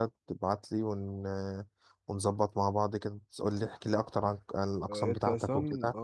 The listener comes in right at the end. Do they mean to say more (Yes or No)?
Yes